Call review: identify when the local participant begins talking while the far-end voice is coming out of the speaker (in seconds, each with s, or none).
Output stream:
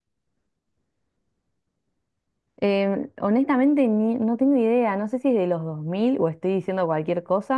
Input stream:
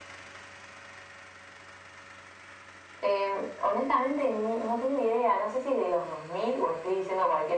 none